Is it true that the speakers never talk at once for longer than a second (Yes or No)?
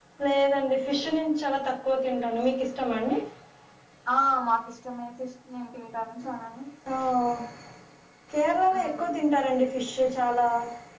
Yes